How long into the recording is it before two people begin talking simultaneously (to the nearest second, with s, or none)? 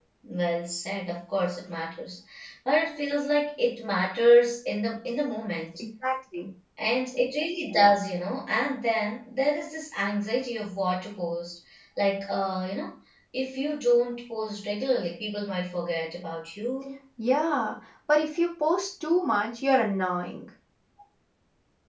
none